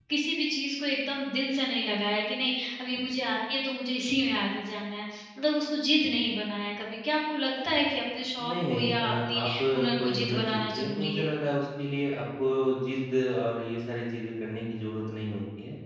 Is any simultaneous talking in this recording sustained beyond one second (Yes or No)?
Yes